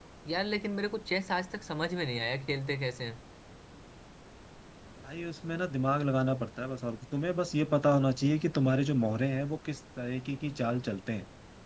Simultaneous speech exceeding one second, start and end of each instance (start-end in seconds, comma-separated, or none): none